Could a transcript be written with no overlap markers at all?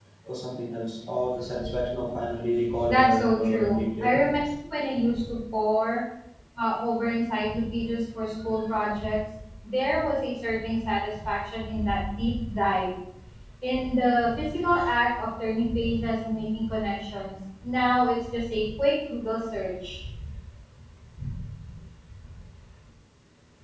No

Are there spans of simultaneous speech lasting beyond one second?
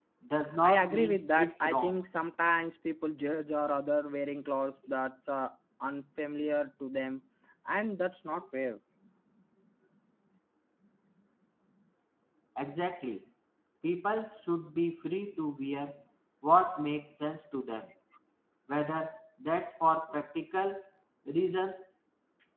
Yes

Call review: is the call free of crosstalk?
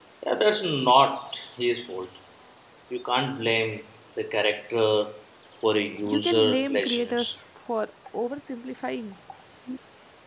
No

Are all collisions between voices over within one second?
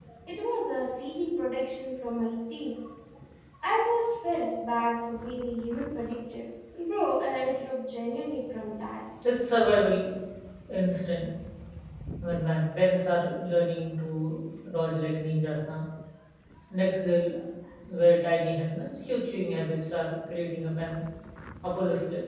Yes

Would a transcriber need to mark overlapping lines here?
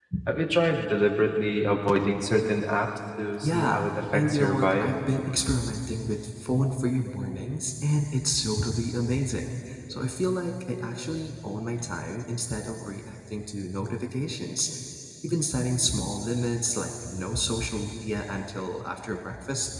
Yes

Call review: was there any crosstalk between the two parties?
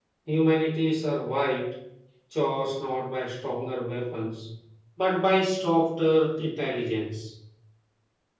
No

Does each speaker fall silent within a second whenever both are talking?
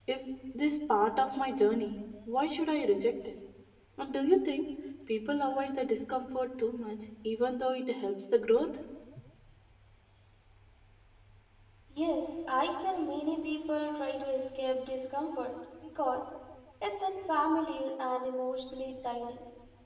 Yes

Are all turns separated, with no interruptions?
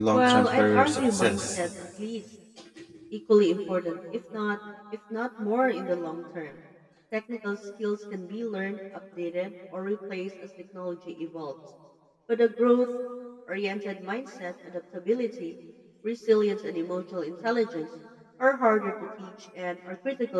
No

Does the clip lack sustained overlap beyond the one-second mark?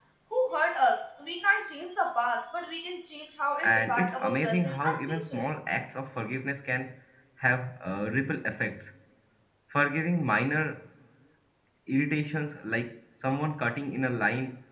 No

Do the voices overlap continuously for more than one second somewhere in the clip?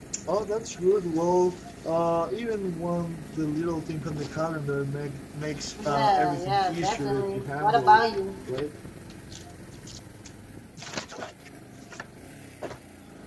Yes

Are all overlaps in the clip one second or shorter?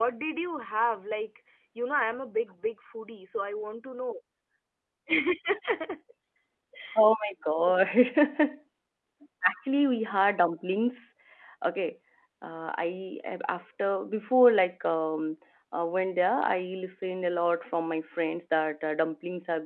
Yes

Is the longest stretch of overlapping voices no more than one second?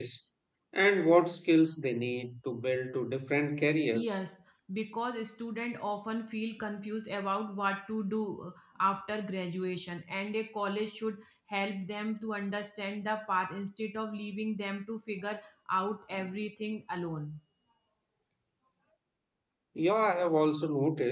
Yes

